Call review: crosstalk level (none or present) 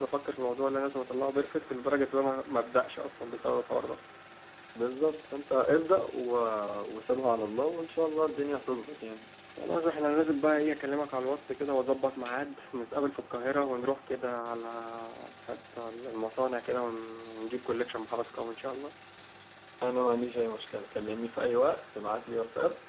none